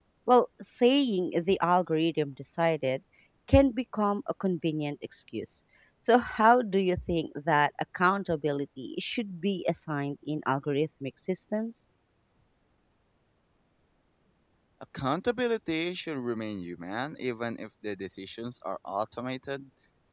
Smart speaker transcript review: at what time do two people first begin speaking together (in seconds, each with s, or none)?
none